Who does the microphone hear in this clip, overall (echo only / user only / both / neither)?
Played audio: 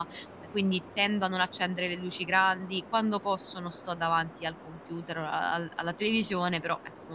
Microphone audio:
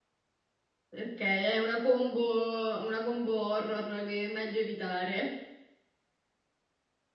user only